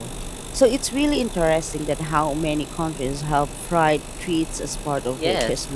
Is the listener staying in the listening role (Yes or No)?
No